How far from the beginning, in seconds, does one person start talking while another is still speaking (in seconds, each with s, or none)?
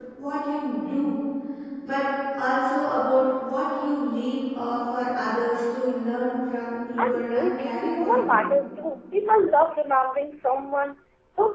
7.0 s